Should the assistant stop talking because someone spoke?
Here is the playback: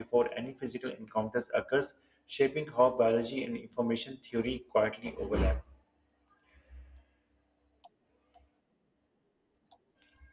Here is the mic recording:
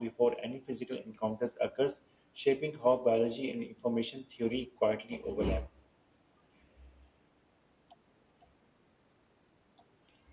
No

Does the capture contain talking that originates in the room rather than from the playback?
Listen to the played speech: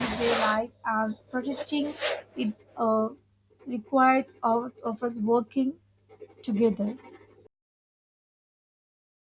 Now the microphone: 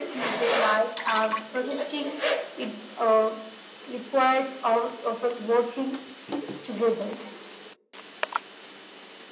No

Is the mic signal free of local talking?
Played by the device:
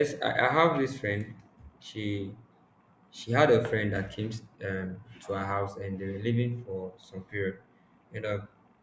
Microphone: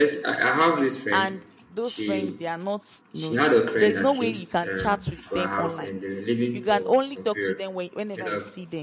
No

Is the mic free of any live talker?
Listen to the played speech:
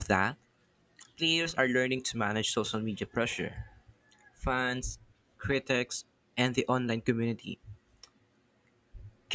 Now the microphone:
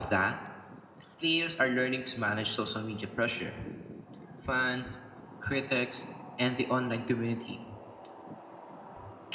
Yes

